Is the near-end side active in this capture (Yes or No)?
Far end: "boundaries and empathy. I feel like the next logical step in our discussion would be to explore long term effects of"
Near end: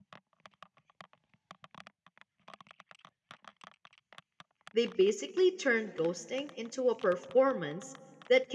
Yes